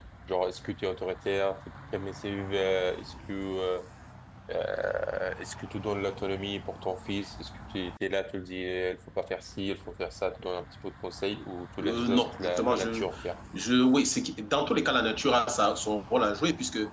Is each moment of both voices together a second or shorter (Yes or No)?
No